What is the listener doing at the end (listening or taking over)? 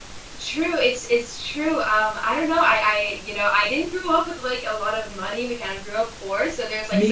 listening